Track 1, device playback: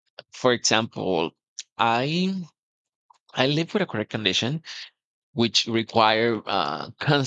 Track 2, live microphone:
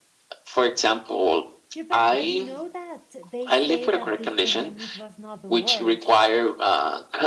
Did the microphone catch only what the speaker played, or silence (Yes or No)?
No